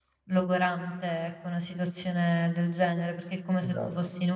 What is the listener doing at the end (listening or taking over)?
listening